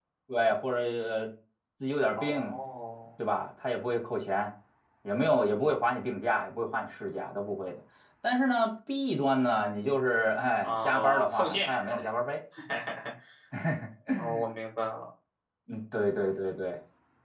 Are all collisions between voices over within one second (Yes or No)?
No